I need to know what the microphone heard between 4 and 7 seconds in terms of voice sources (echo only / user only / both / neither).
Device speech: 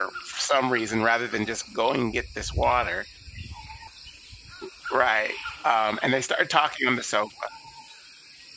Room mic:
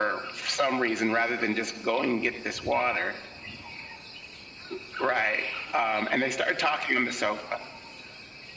echo only